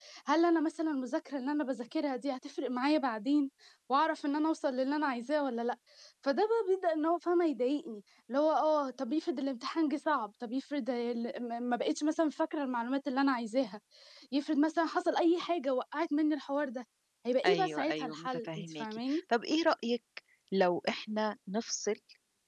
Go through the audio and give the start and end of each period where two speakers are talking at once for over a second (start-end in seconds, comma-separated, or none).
17.4-18.9